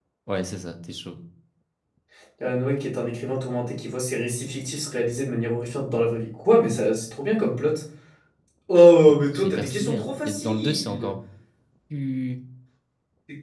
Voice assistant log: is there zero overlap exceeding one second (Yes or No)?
No